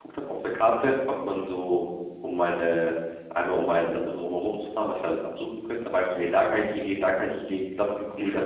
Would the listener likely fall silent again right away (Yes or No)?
No